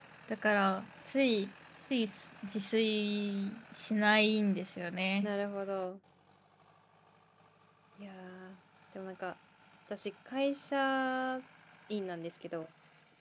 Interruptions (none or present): none